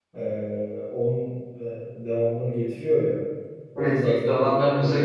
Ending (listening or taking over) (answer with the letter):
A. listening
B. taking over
B